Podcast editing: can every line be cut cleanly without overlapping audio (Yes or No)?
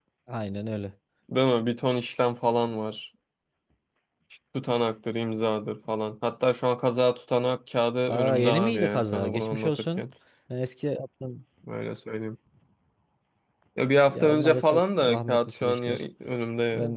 No